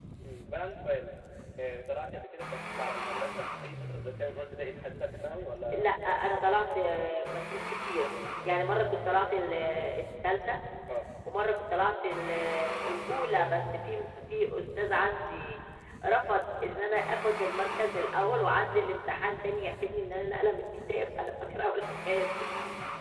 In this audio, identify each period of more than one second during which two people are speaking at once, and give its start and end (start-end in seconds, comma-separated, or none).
5.7-7.0